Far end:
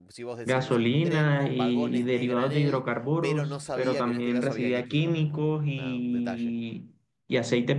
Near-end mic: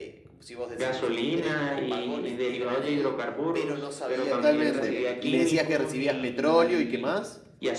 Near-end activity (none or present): present